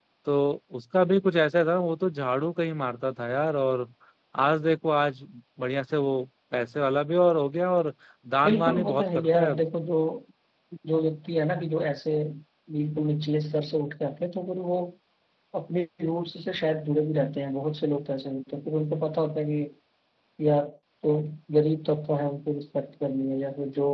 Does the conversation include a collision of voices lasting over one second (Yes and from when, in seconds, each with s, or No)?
Yes, from 8.4 s